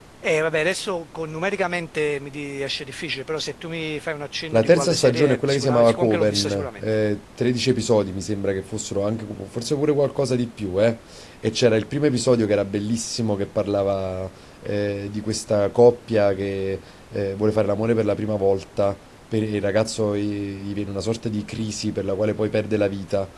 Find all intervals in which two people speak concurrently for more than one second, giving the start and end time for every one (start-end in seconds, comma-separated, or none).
4.5-6.8